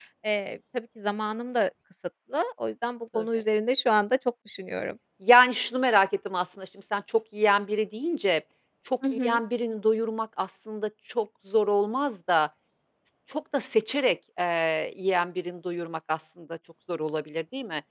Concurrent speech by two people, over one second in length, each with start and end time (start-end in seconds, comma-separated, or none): none